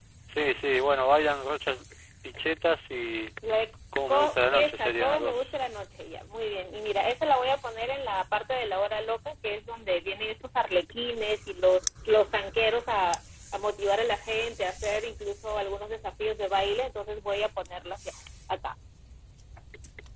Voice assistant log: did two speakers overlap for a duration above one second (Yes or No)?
Yes